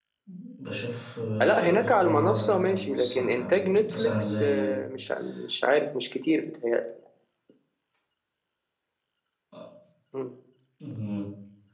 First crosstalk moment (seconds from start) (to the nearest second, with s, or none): 1 s